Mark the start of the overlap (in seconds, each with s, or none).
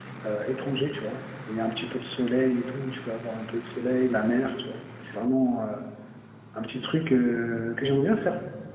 none